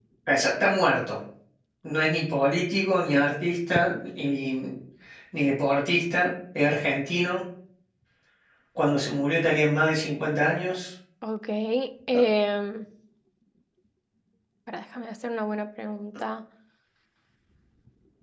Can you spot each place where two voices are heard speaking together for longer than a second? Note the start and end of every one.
none

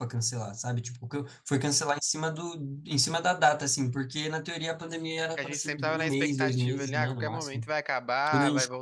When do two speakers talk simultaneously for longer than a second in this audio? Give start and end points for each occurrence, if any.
5.4-7.7

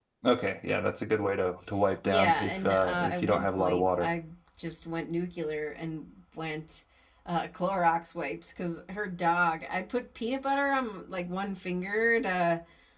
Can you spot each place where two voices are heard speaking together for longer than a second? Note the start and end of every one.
2.0-4.1

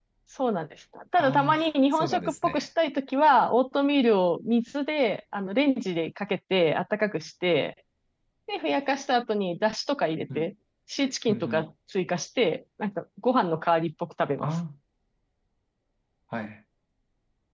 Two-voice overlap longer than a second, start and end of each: 1.2-2.7

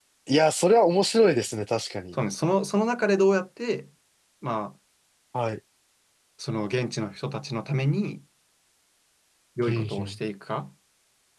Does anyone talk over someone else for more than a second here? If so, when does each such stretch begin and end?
none

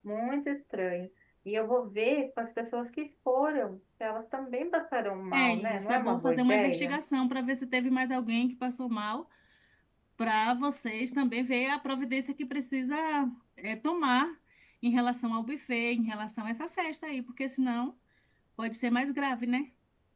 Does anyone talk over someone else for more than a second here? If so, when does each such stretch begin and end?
5.3-7.0

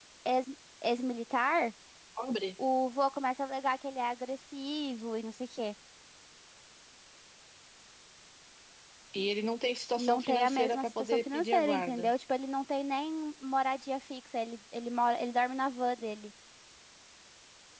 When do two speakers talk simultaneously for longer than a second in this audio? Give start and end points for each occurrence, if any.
10.0-12.1

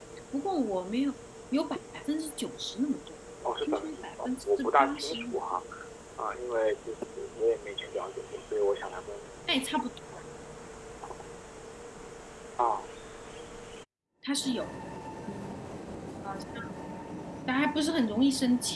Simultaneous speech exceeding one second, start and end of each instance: 3.4-5.4

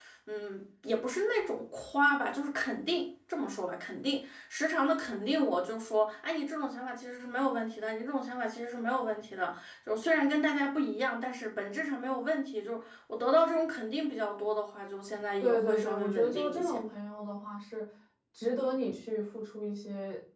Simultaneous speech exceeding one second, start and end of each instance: 15.4-16.8

